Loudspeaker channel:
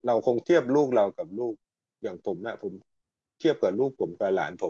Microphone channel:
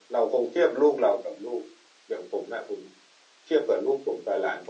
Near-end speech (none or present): none